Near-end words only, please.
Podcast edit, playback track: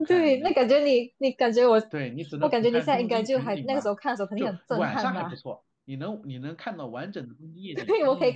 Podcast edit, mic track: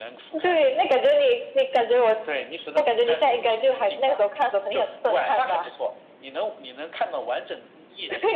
none

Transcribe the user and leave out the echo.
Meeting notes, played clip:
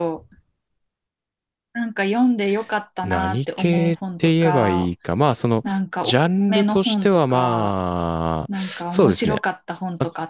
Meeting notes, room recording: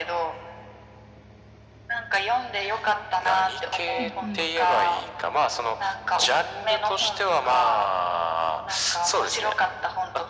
うんうん。

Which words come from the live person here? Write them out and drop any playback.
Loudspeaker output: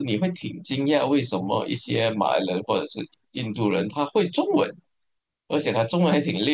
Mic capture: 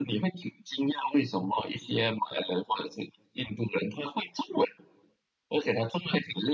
none

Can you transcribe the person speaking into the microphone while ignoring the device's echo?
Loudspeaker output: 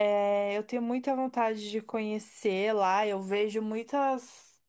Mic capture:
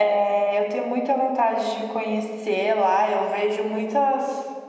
none

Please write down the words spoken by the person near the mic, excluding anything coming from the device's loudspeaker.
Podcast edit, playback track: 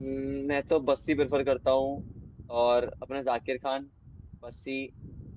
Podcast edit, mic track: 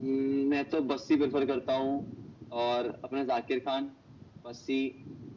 none

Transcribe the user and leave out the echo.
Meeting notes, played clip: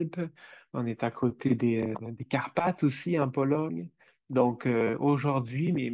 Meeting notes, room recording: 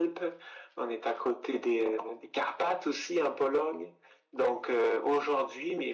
none

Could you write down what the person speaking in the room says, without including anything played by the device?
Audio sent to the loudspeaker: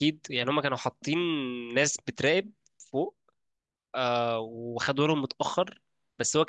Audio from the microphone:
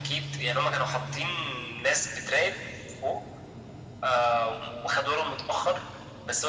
none

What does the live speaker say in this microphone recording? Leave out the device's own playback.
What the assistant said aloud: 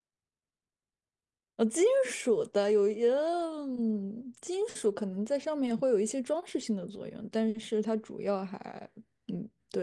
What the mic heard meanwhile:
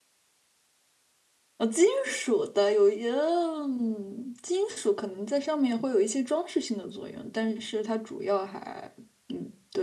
none

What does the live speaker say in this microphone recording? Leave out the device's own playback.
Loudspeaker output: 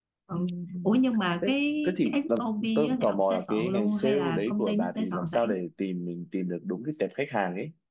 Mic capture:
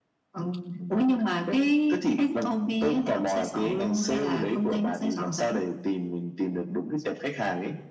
none

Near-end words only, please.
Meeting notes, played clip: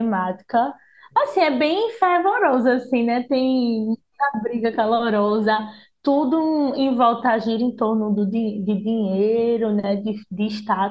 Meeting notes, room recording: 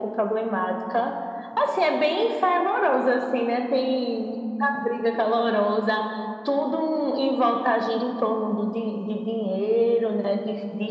none

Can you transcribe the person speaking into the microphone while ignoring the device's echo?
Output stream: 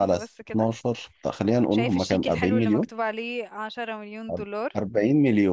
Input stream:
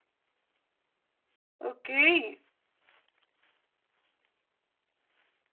أوكي

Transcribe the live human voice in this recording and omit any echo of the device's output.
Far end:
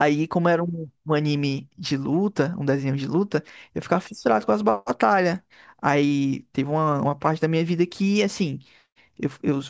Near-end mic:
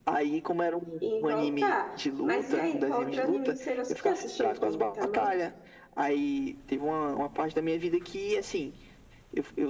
em voltar. Mas e aí, qual outro anime que você gosta? Você já assistiu Gintama?

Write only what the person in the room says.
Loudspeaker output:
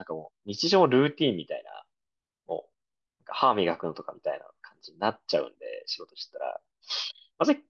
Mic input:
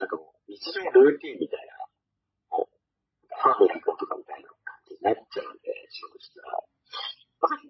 none

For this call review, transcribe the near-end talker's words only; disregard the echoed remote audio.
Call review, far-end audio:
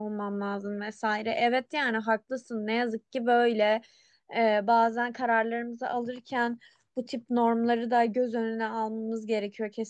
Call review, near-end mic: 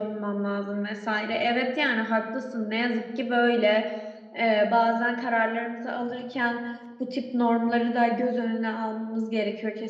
none

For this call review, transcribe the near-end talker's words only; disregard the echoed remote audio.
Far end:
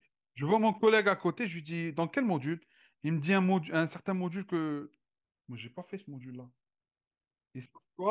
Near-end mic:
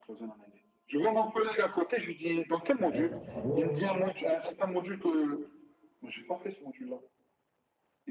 Ouais, bah bravo. hein.

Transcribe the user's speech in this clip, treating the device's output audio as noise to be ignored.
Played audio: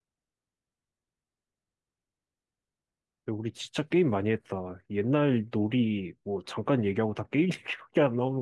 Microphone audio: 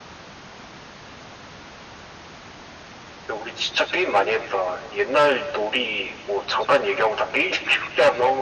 none

